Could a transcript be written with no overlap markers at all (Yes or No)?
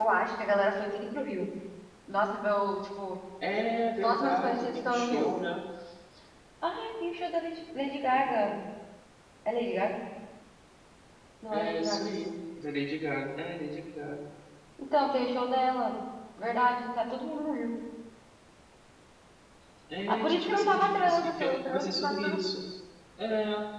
No